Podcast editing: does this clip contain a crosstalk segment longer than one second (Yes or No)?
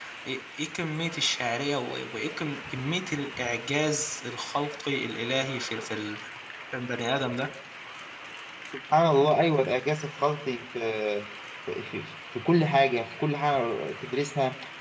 No